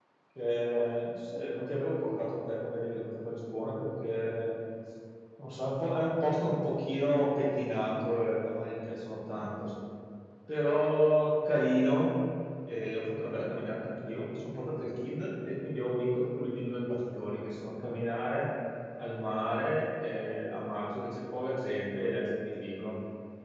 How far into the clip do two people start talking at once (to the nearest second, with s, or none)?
none